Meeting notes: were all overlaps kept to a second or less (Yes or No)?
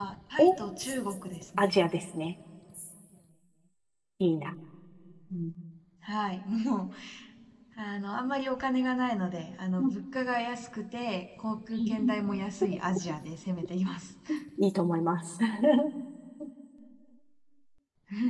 Yes